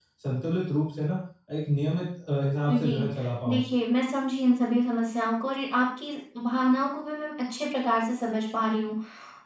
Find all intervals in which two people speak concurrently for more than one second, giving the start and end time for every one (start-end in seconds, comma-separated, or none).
none